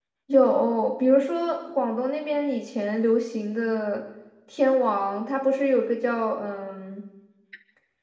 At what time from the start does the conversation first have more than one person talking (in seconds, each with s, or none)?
none